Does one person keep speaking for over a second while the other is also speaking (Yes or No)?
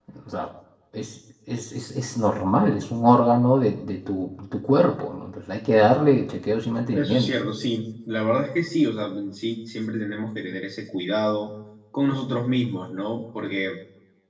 No